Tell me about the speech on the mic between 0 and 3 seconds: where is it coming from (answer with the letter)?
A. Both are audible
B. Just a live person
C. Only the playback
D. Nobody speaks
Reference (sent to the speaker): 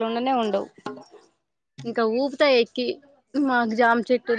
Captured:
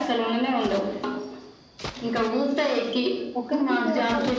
C